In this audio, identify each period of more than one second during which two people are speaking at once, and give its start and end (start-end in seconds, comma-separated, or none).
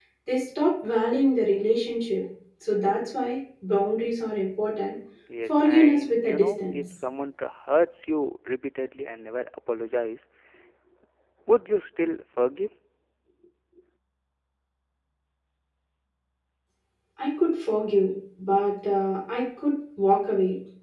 5.5-6.8